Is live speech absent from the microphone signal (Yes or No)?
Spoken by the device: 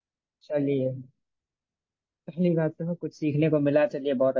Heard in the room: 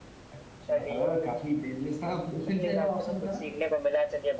No